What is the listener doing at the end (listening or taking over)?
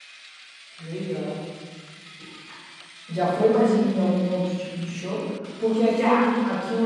listening